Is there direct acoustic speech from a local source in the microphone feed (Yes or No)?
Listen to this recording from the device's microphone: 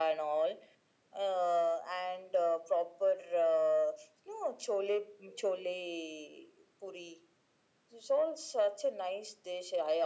No